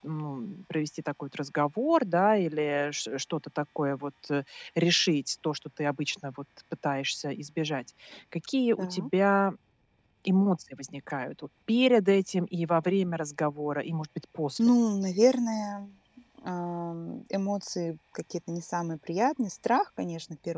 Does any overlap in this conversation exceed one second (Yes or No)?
No